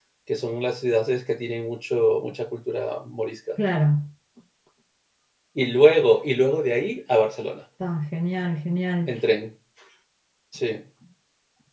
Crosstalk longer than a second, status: none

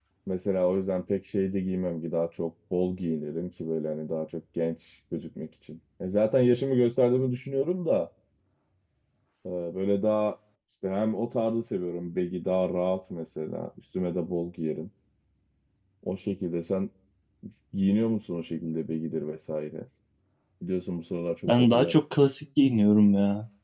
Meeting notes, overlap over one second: none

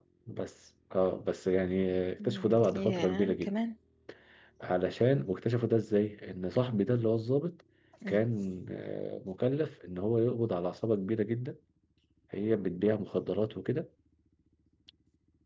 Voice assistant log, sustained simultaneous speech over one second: present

